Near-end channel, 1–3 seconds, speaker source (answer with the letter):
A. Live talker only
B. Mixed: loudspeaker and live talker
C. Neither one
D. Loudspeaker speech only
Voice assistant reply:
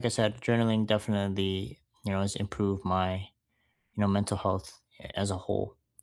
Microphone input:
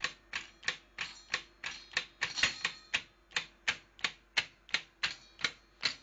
C